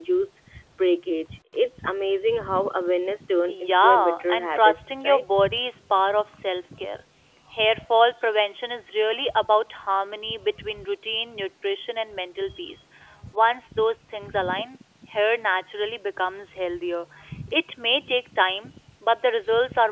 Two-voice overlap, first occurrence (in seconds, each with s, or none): 3.5 s